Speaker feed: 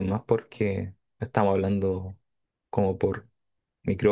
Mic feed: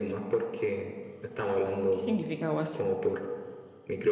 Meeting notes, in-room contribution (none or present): present